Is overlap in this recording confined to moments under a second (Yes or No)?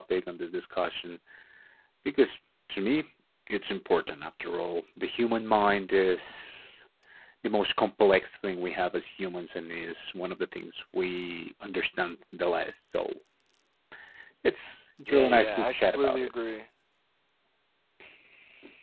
No